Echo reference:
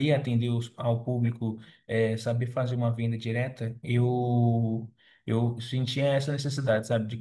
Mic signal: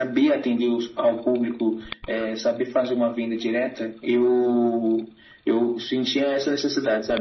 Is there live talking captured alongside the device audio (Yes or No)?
No